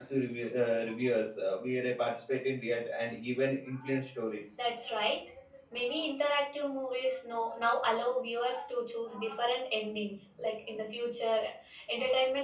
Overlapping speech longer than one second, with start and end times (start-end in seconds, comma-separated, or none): none